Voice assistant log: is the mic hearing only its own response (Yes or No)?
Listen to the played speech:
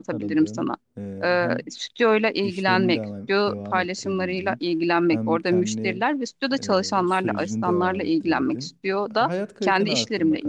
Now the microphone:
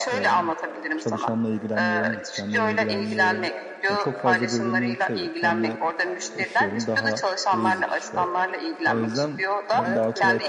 No